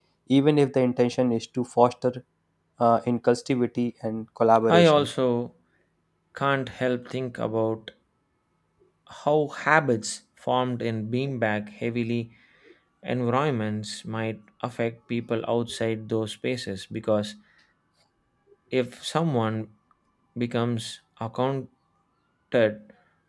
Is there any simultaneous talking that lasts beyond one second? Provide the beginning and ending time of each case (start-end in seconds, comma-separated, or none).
none